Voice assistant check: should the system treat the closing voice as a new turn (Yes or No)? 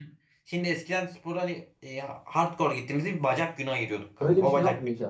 Yes